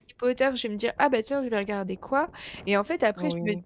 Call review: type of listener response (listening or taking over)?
listening